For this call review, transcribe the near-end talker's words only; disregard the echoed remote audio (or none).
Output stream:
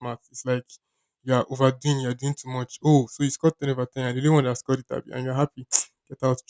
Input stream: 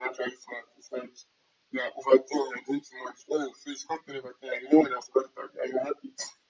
none